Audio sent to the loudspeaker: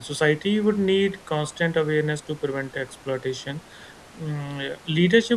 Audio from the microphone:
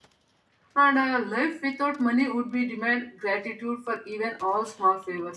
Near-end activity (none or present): present